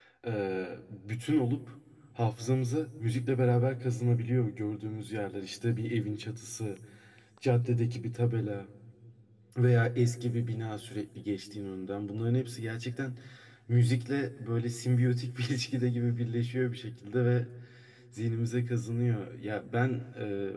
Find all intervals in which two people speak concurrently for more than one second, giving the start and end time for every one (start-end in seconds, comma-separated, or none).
none